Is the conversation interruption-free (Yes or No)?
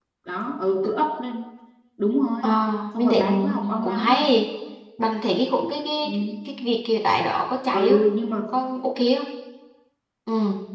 No